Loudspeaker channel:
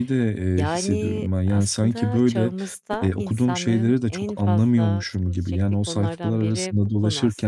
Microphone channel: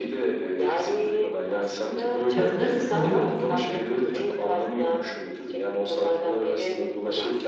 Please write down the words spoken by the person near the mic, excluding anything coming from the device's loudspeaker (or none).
Katılır mısın buna?